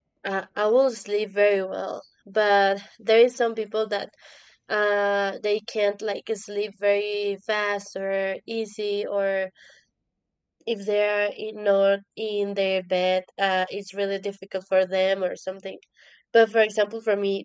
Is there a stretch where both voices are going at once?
No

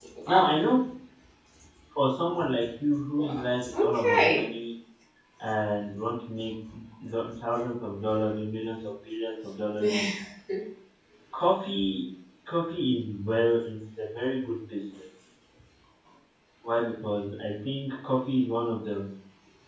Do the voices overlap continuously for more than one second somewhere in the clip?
Yes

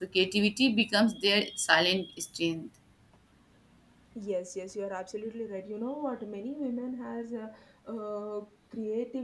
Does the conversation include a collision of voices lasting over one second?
No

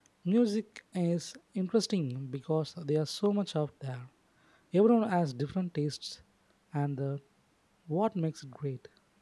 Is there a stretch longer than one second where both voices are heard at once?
No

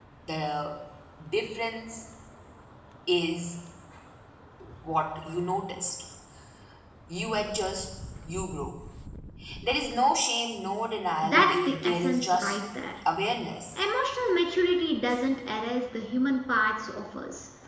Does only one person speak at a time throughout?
No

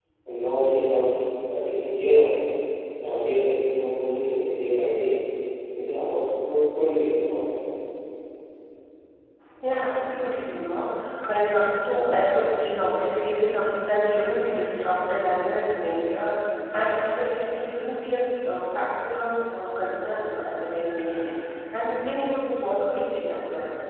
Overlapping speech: No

